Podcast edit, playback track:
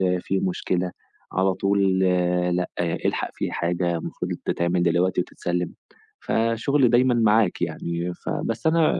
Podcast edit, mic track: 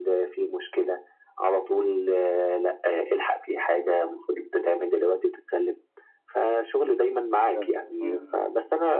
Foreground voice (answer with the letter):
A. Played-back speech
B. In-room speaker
A